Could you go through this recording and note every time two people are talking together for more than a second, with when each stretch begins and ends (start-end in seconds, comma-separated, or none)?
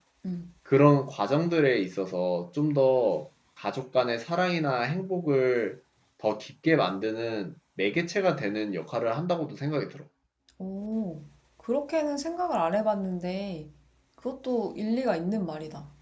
none